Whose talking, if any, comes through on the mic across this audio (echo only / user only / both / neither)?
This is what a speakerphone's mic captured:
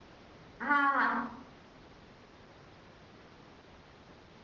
user only